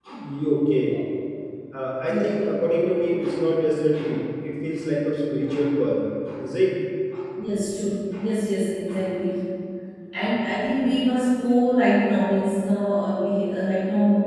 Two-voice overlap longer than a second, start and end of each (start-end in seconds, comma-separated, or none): none